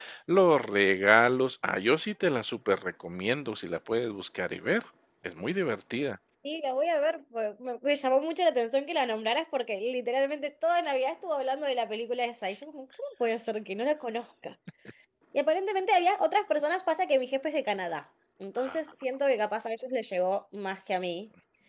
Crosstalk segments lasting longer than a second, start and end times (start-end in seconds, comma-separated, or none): none